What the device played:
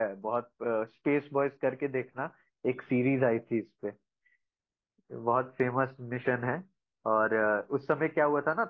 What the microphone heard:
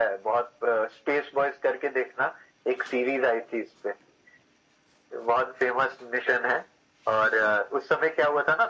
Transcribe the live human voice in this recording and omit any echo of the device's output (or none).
none